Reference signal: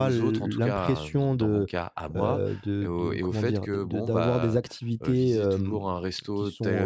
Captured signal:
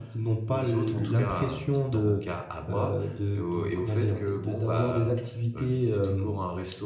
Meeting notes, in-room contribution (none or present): none